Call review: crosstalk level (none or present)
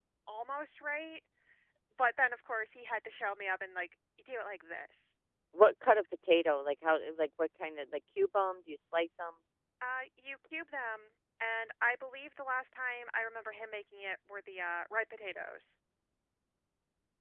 none